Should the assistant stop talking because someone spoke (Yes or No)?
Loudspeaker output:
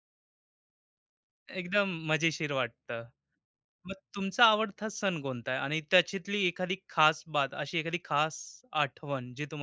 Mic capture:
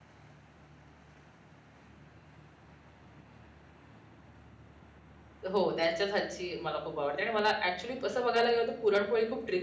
Yes